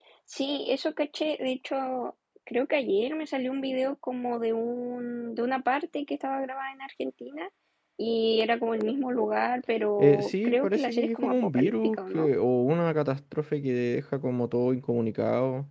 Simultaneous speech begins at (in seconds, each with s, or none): 10.0 s